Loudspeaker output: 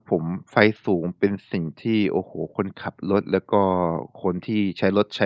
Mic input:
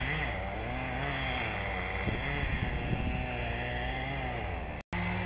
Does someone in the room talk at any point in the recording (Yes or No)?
No